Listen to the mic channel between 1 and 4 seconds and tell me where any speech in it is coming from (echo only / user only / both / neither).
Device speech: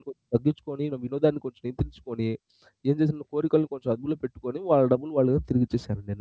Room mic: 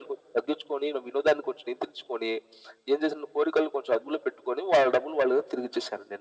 echo only